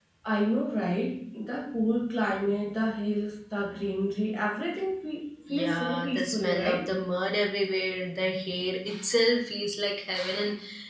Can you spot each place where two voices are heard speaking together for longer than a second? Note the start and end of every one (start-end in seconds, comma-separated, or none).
5.5-6.9